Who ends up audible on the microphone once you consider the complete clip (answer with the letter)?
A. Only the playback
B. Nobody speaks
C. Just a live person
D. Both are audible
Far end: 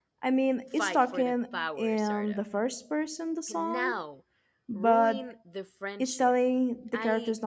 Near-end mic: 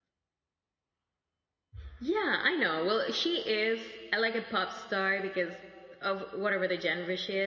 C